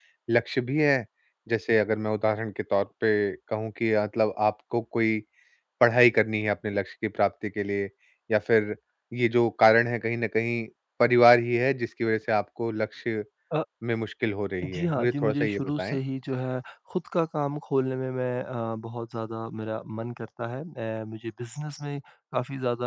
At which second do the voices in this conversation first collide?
14.6 s

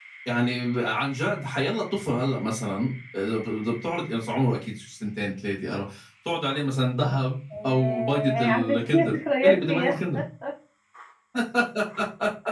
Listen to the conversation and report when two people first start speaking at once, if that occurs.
7.5 s

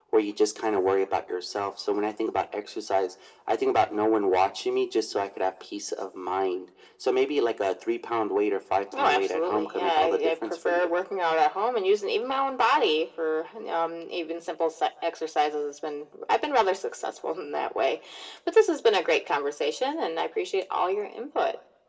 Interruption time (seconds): 8.9 s

